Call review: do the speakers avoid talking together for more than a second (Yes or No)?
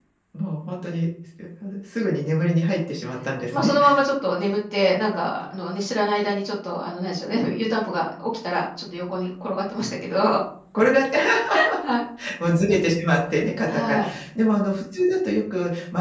Yes